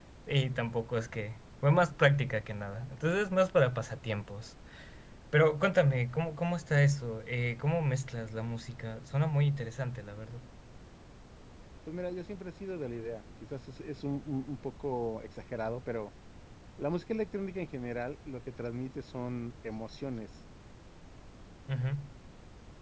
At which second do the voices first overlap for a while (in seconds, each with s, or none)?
none